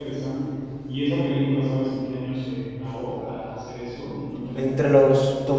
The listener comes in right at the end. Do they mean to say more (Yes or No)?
Yes